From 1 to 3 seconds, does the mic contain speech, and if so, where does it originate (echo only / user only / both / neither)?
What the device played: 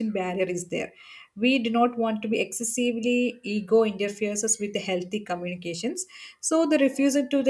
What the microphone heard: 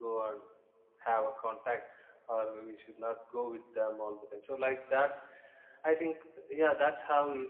user only